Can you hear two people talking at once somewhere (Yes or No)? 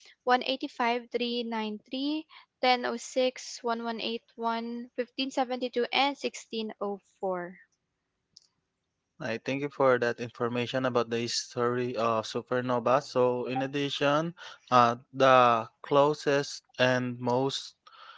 No